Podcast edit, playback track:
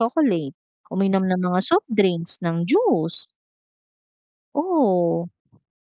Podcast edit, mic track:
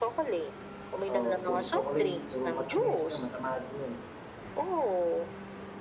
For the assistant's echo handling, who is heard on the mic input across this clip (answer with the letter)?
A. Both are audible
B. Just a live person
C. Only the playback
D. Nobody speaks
A